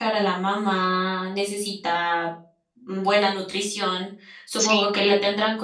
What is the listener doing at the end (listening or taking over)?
listening